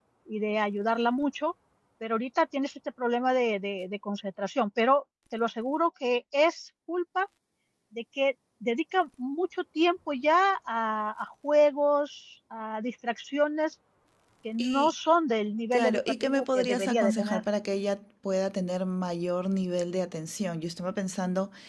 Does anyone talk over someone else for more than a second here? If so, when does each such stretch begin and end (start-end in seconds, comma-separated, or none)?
15.7-17.4